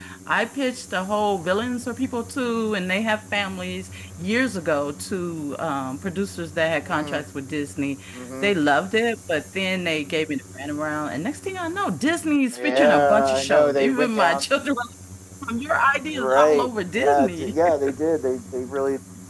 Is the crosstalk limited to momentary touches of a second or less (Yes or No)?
No